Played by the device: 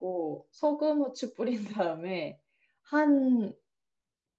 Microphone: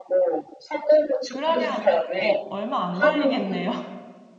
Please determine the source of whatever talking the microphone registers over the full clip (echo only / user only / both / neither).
both